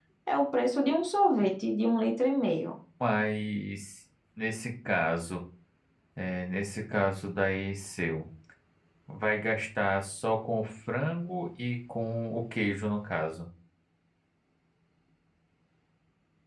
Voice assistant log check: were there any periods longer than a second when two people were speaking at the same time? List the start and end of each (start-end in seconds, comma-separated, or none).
none